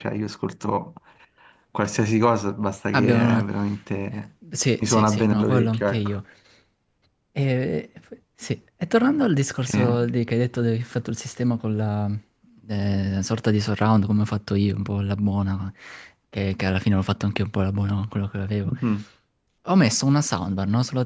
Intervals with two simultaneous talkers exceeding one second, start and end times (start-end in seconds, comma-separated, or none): 4.9-6.2